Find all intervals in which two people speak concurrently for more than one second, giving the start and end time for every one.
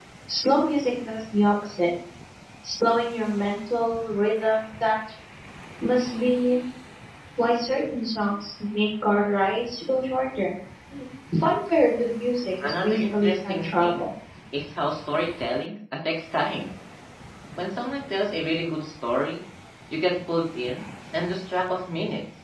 12.6-14.1

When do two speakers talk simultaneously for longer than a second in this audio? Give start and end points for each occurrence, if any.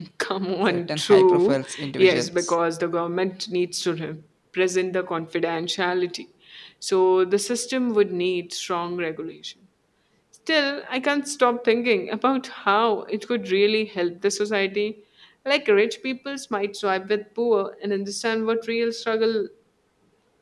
0.7-2.5

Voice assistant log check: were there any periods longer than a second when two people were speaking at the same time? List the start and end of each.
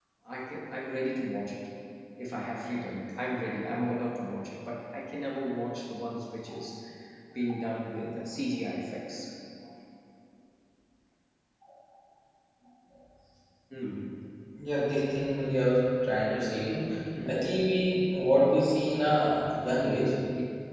none

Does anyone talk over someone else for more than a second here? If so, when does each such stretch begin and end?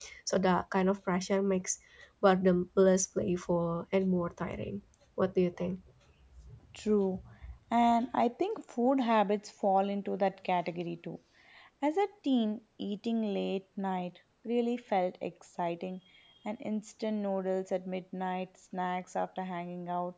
none

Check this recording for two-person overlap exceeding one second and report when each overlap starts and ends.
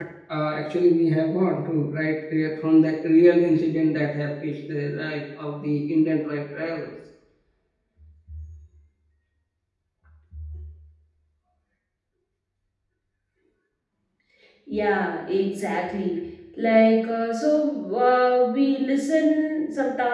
none

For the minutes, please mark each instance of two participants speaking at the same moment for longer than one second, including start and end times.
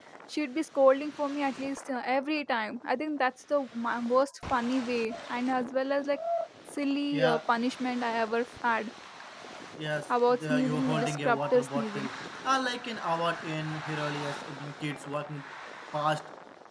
10.1-12.1

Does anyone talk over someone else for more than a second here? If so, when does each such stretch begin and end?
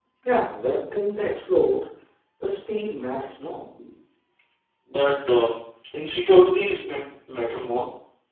none

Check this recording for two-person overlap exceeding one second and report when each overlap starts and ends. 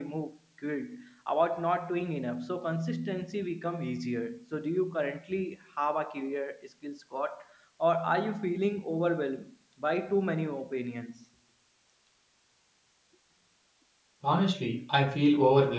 none

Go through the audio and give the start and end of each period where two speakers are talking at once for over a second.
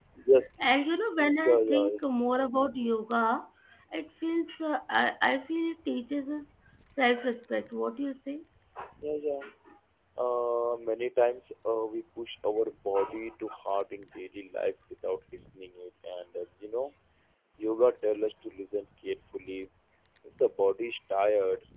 none

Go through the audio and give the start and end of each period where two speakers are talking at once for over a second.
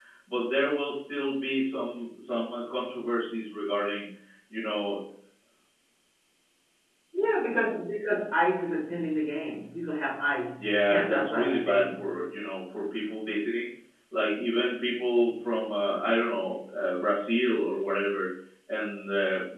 10.6-12.1

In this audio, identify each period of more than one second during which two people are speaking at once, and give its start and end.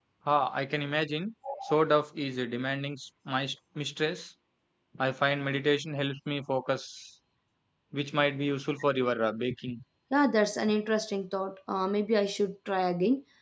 none

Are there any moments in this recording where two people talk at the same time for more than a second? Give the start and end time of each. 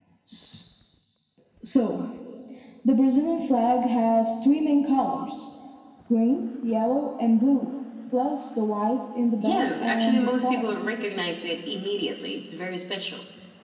9.4-11.0

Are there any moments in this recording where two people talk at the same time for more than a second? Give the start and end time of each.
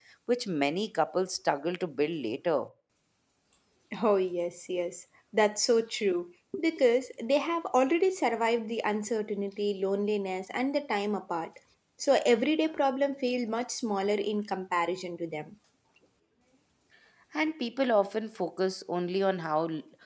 none

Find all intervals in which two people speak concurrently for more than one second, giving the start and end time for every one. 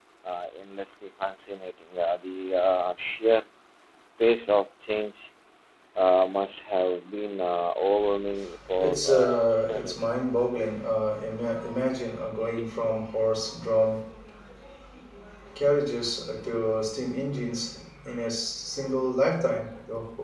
8.8-10.1

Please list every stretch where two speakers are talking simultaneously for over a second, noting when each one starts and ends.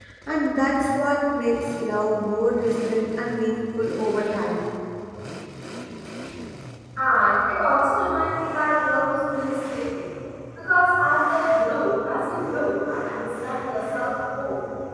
none

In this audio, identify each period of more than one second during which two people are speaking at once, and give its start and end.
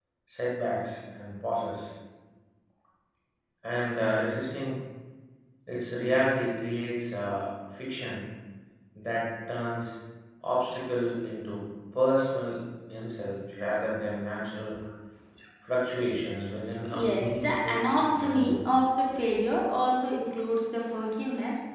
17.0-18.6

